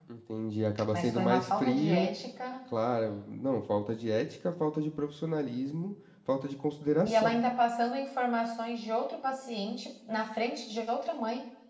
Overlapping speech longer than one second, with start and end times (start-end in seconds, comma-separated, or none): 0.9-2.2